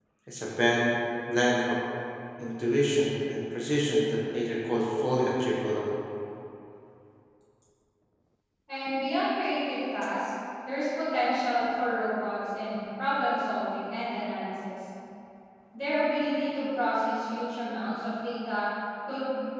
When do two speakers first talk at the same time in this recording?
none

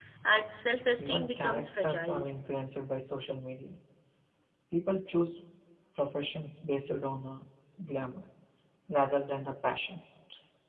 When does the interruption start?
1.0 s

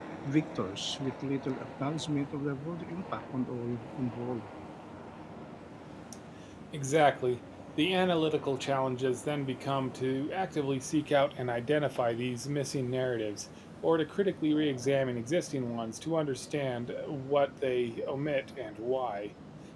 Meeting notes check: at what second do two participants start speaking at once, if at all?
none

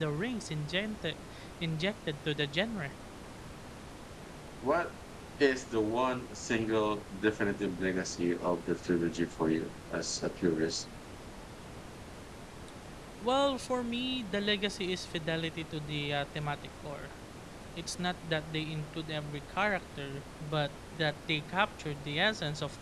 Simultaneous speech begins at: none

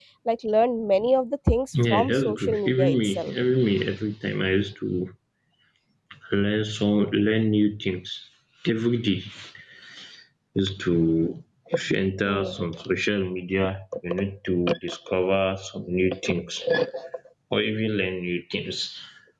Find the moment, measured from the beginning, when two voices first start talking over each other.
1.9 s

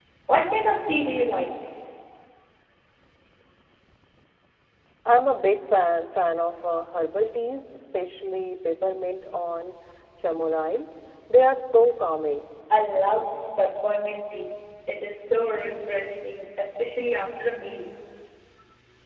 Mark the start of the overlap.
none

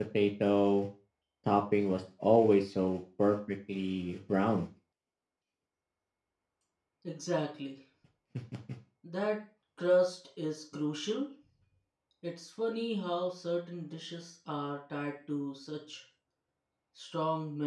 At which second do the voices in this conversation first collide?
none

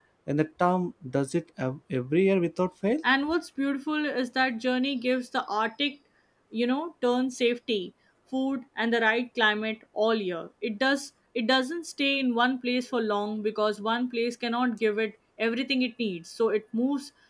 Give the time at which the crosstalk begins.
none

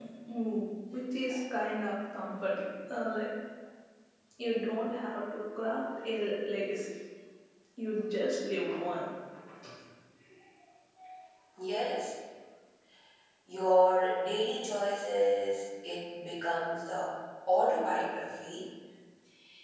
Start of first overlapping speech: none

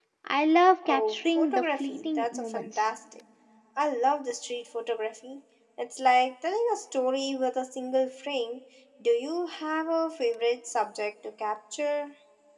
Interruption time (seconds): 0.9 s

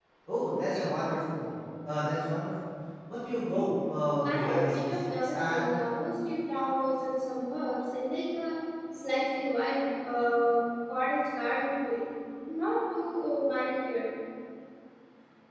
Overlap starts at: 4.2 s

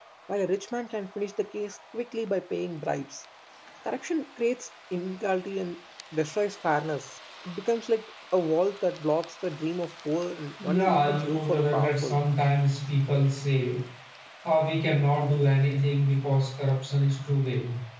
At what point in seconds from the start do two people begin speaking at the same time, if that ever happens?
10.6 s

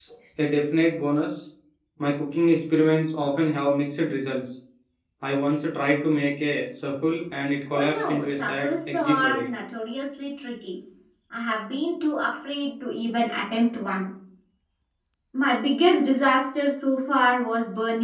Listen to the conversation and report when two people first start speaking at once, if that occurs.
7.7 s

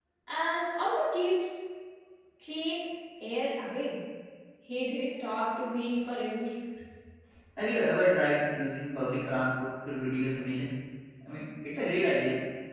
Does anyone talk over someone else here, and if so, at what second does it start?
none

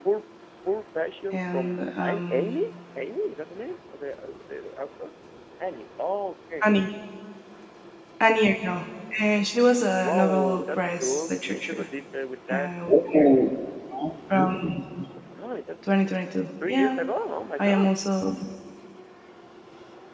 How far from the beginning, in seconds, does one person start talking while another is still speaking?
1.3 s

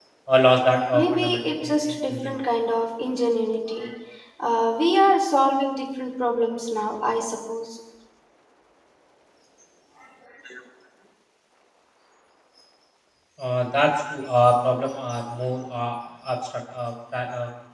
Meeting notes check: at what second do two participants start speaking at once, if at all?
0.9 s

